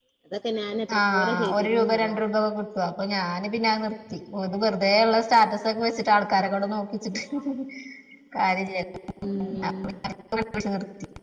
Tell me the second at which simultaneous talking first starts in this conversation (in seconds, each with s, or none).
1.0 s